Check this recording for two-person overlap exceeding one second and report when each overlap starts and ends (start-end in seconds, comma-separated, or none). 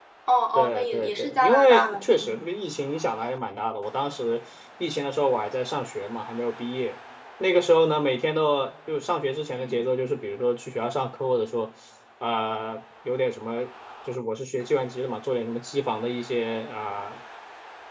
0.6-2.4